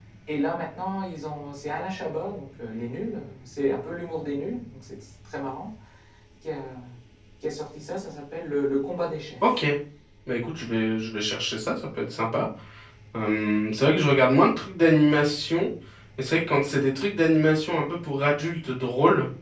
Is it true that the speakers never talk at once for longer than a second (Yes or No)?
Yes